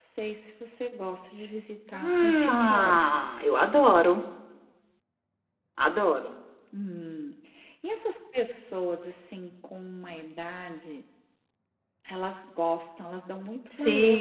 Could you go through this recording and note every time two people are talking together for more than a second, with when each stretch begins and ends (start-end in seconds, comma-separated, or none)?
1.9-3.2